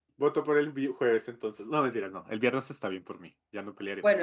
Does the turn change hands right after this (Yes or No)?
Yes